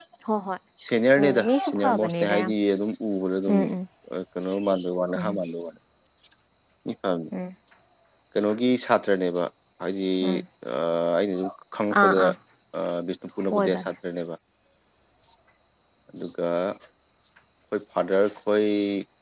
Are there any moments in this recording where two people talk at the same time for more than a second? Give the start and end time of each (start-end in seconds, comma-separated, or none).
1.2-2.5